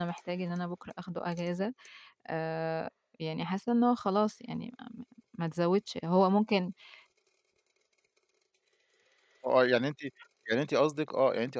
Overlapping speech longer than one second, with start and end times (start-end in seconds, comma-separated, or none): none